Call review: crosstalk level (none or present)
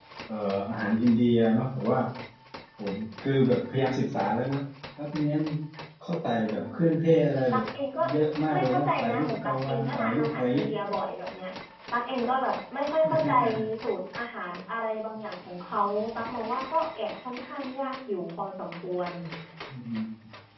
present